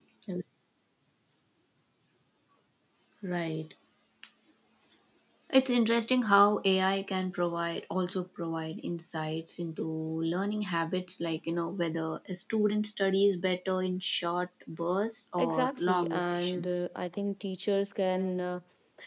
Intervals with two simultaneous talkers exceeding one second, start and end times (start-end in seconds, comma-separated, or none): 15.4-16.8